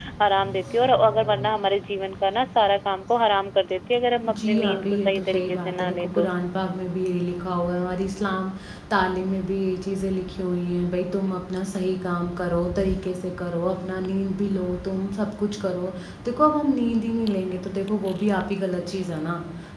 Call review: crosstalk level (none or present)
present